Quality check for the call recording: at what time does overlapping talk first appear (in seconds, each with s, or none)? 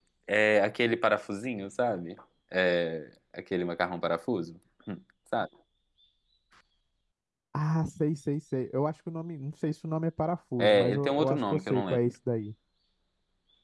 10.6 s